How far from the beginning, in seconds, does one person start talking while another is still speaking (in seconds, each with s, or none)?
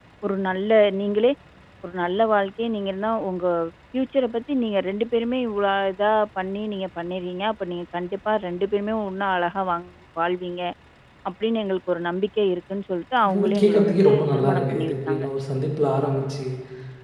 13.2 s